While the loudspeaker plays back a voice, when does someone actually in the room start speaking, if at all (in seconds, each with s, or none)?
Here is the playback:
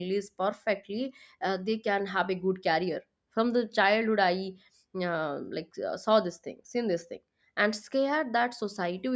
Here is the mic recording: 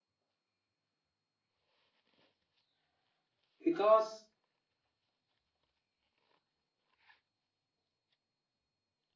3.7 s